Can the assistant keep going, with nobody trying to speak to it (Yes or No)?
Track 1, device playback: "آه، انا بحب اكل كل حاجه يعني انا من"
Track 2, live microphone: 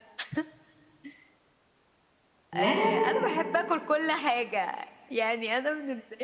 No